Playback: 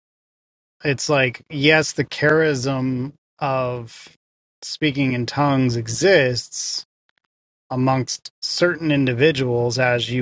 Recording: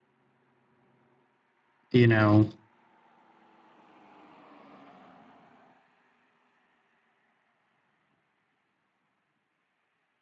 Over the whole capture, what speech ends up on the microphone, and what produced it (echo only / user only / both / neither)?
user only